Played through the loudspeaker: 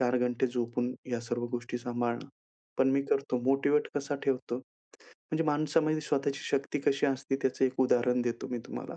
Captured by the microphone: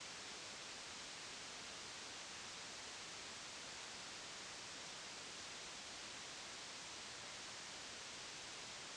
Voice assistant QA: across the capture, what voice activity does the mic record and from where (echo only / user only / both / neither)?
neither